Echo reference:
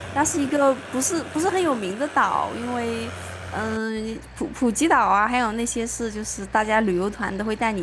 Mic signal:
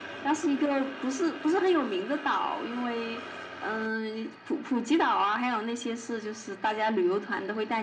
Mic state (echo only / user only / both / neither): echo only